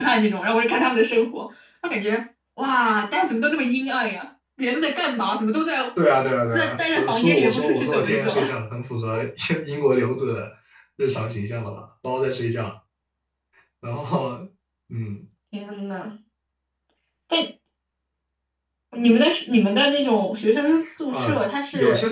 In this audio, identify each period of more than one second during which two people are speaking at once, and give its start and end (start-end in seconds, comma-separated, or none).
6.5-8.3